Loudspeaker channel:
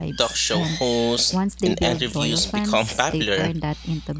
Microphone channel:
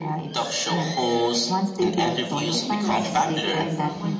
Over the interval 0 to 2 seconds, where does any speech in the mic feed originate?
echo only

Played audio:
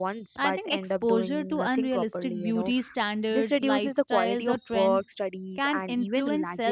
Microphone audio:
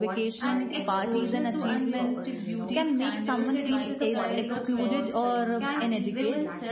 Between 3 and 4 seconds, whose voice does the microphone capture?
both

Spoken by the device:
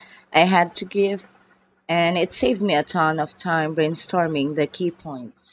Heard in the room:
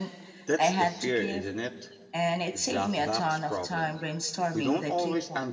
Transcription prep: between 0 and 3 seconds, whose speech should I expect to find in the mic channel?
both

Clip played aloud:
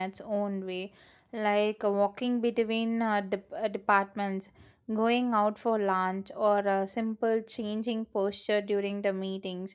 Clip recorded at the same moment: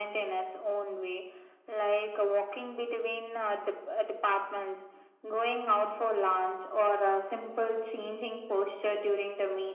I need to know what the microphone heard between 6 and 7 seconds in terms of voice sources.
echo only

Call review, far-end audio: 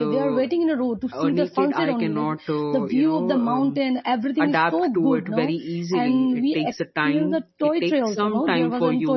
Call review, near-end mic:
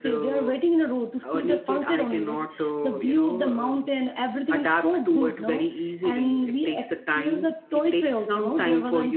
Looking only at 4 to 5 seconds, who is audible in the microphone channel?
echo only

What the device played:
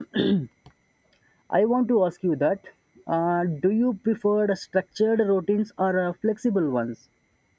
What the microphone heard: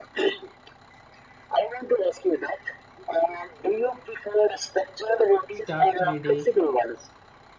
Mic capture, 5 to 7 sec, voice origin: both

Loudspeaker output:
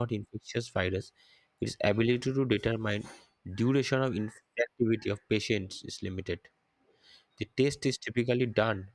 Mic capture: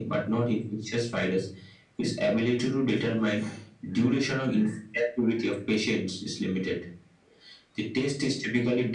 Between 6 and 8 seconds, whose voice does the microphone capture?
echo only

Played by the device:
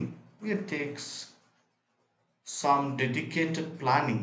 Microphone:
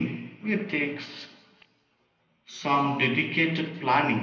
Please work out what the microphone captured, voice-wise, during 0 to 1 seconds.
echo only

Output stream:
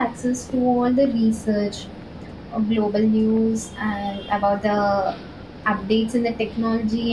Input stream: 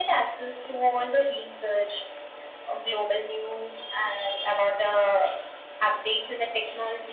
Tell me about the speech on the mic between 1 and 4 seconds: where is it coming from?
echo only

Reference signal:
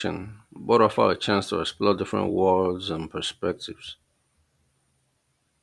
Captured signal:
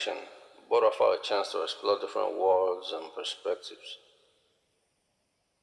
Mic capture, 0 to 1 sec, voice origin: echo only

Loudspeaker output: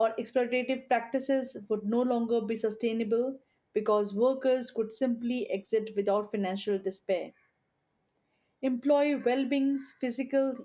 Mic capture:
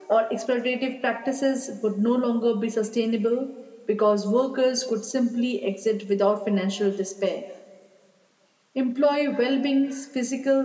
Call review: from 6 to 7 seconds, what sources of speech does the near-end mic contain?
echo only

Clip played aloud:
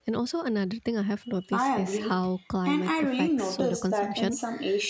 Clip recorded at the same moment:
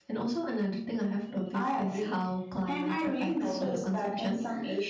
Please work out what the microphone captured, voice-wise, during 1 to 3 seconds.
echo only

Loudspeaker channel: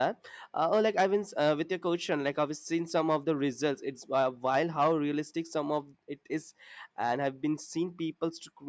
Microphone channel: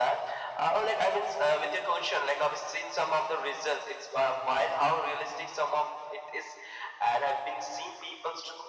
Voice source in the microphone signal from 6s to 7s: echo only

